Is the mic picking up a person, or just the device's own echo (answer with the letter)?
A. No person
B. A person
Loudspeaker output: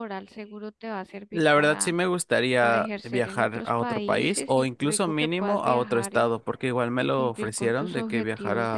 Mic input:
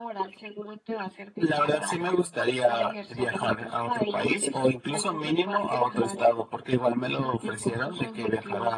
A